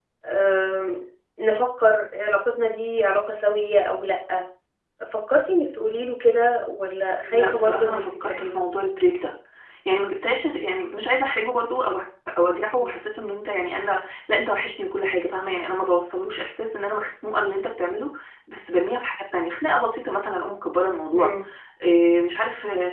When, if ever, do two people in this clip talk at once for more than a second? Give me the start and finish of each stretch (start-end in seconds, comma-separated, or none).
7.3-8.6